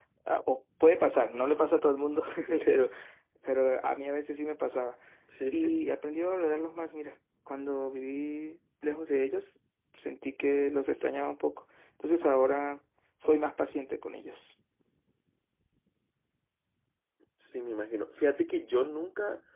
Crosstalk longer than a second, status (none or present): none